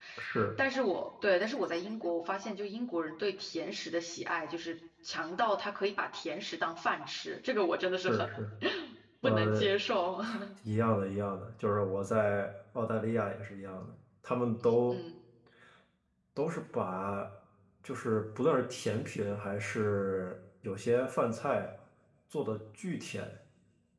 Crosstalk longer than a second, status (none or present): none